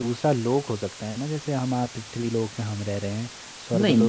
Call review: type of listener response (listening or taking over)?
listening